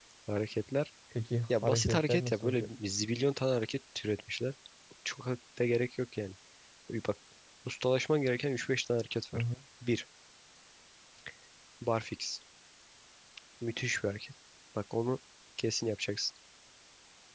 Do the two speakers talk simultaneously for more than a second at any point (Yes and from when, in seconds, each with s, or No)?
Yes, from 1.5 s